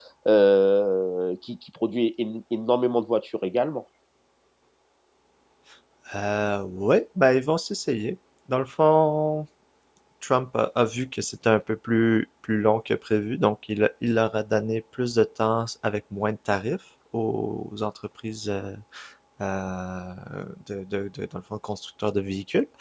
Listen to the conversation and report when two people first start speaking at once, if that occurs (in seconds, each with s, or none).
none